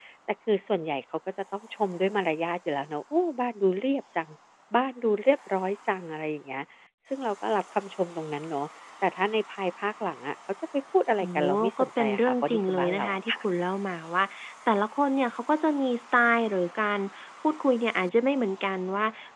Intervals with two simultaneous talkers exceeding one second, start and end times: 11.2-13.4

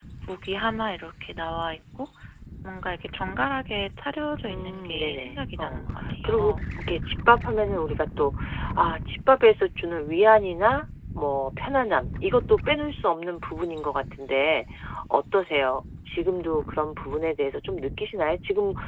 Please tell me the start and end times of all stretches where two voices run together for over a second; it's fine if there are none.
4.5-5.8

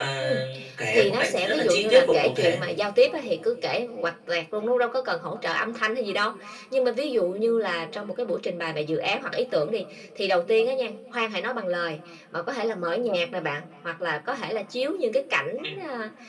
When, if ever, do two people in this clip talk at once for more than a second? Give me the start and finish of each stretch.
0.9-2.6

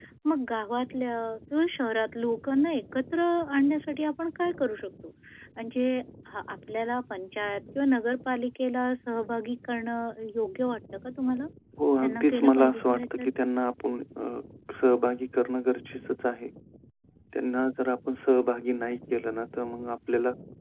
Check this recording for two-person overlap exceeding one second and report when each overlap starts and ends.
12.0-13.3

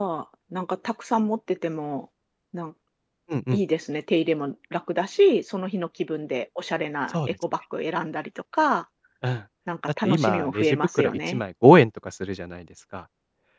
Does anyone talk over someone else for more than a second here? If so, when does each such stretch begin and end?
10.0-11.4

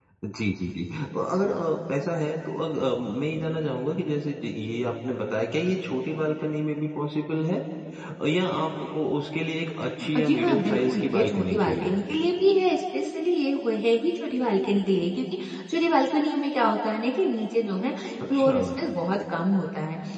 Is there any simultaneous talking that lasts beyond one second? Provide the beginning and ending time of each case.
10.2-11.9

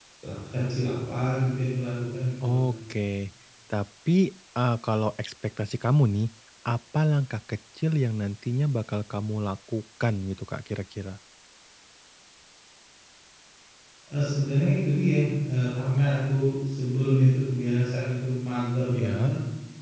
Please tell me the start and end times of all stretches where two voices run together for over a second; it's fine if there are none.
none

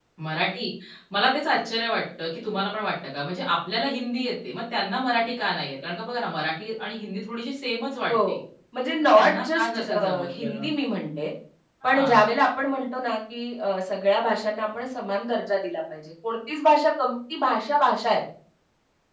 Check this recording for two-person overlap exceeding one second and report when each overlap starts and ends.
9.0-10.6

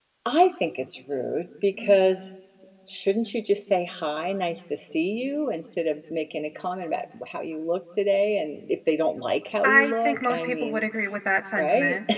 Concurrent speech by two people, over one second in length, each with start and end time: 9.6-10.8

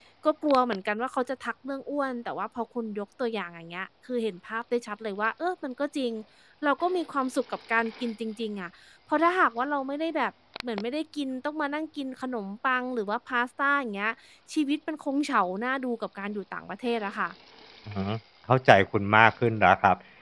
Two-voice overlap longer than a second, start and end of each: none

